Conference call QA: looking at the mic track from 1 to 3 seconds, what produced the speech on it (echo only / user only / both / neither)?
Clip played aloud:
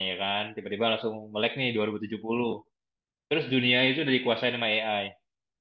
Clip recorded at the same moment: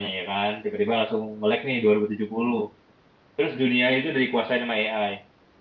echo only